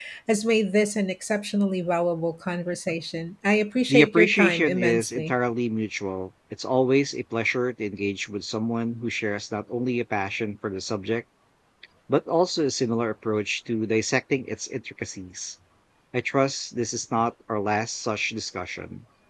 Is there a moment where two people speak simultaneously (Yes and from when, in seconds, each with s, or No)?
Yes, from 3.9 s